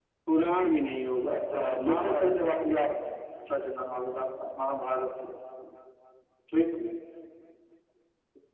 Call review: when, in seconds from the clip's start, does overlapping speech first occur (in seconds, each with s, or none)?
1.5 s